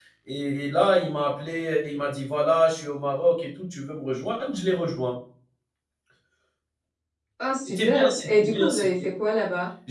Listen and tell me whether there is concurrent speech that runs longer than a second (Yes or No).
Yes